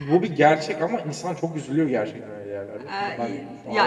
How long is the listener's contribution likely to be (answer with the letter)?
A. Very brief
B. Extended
B